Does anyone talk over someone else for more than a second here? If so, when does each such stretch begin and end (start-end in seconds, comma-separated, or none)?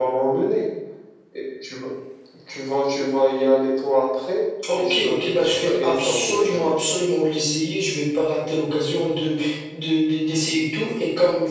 4.8-6.7